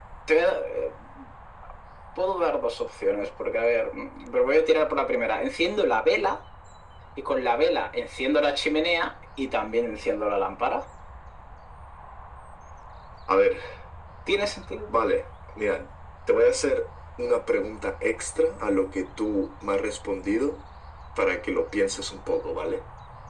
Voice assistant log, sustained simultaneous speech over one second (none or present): none